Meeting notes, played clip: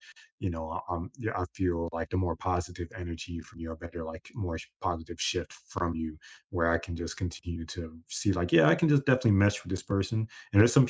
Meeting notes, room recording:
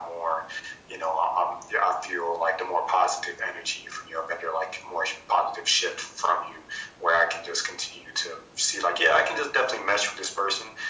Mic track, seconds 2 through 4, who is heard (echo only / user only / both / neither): echo only